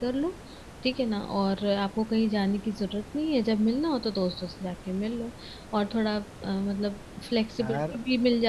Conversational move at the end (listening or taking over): listening